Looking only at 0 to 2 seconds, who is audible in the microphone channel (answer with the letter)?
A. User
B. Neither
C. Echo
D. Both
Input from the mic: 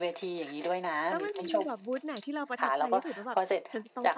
D